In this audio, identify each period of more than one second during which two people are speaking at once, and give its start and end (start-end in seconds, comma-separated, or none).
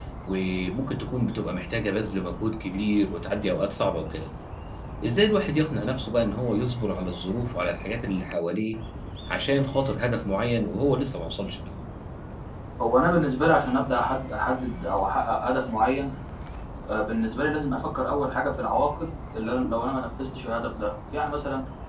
none